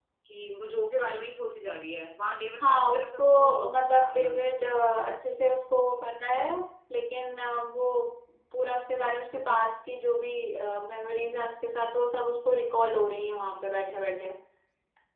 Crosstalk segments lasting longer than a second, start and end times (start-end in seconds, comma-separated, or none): 2.6-4.5